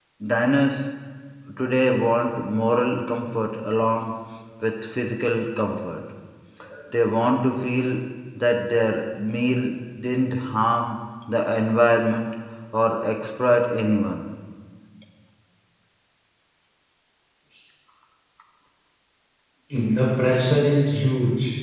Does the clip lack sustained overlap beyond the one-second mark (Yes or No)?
Yes